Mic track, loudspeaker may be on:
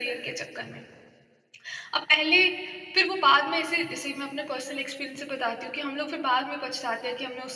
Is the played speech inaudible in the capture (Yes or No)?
No